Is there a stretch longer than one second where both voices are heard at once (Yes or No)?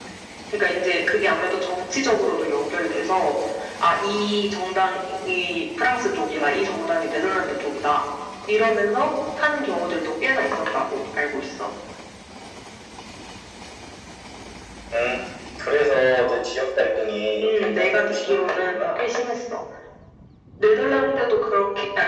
Yes